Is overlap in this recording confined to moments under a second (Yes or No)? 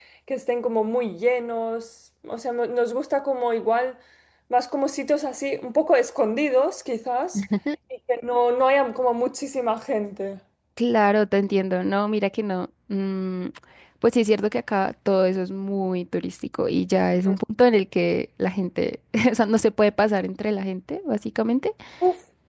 Yes